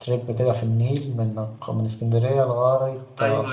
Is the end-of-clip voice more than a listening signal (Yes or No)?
Yes